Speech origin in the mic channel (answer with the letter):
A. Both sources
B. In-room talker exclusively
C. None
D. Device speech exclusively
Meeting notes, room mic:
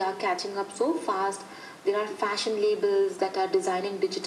D